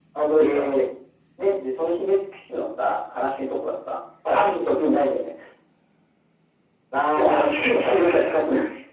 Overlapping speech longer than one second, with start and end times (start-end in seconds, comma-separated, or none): 7.2-8.4